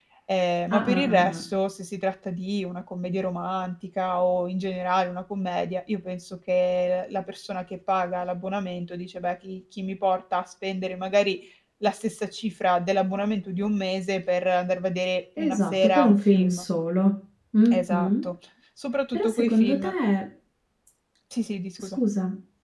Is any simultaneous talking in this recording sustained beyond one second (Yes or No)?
Yes